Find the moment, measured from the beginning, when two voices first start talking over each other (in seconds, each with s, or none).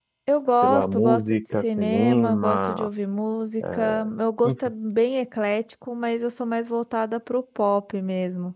0.6 s